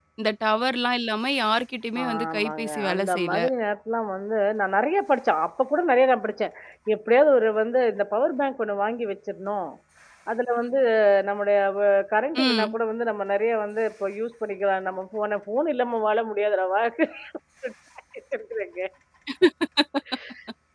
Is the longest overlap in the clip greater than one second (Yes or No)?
Yes